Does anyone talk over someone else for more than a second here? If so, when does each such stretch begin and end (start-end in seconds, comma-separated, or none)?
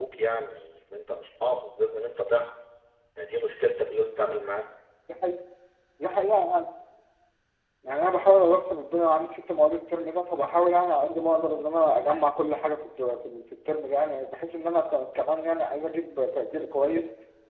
none